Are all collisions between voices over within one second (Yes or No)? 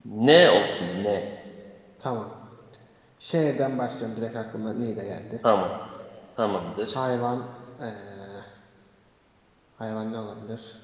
Yes